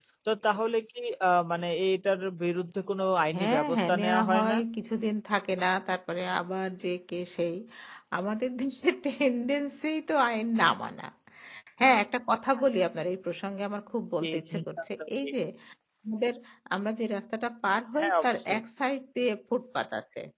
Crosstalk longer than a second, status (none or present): present